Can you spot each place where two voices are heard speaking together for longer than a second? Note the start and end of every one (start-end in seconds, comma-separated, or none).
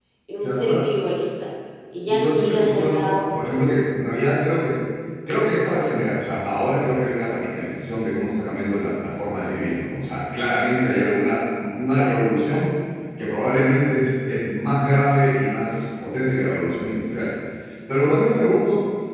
2.1-3.3